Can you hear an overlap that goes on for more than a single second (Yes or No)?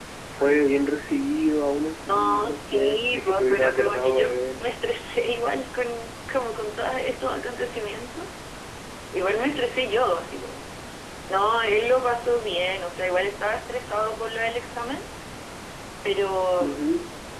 Yes